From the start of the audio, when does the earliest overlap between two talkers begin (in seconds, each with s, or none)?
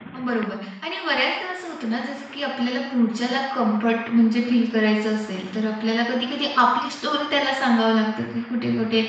none